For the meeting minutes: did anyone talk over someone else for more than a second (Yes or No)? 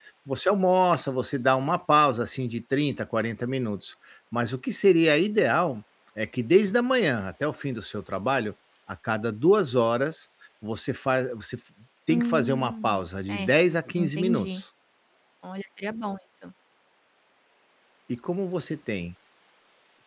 Yes